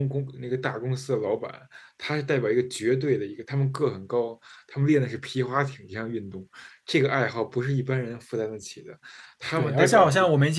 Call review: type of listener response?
taking over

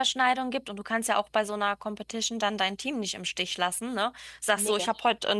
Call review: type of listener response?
listening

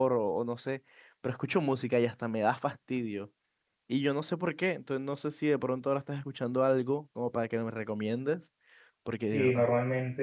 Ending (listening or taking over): taking over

